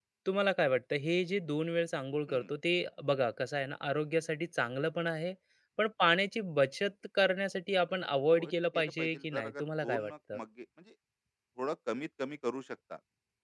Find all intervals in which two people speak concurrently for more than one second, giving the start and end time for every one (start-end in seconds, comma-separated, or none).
8.3-10.4